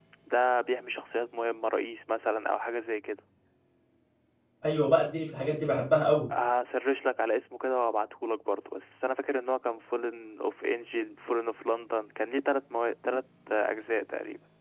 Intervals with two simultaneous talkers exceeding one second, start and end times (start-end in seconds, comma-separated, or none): none